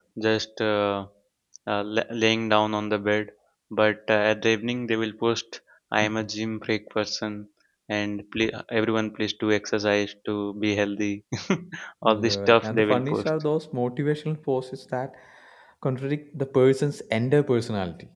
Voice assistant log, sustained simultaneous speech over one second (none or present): present